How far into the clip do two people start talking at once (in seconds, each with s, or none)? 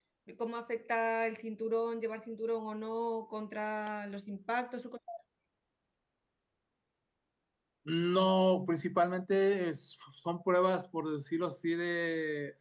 none